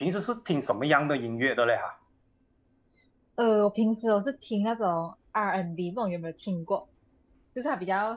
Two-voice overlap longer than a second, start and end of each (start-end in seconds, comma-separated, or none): none